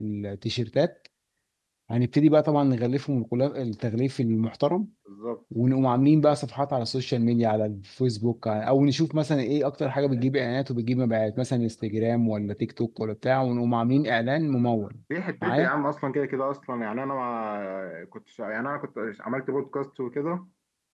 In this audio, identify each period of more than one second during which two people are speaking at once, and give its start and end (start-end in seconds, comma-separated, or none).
none